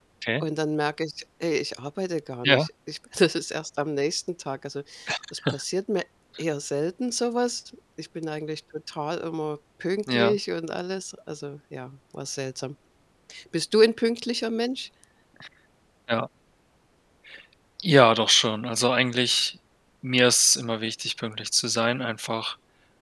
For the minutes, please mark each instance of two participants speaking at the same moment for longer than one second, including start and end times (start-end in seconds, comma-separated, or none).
none